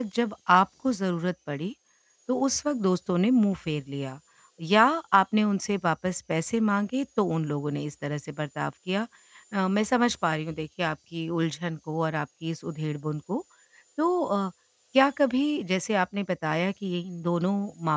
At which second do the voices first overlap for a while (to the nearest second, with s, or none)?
none